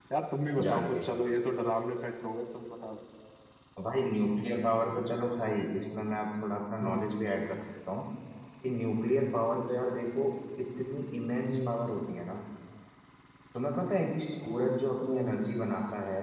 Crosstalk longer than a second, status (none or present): none